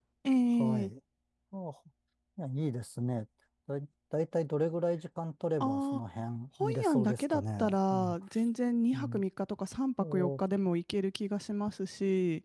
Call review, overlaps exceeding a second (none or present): present